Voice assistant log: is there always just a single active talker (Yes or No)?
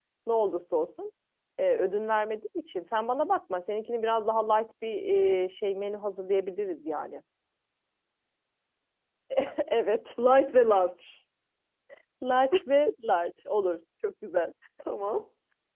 Yes